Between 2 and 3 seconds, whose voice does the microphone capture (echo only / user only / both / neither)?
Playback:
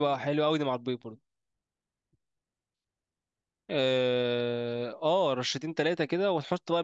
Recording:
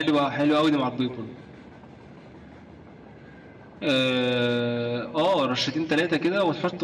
neither